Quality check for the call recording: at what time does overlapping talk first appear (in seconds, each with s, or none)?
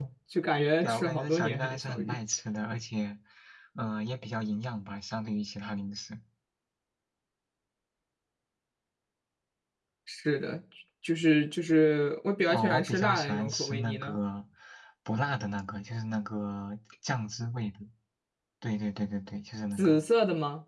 0.8 s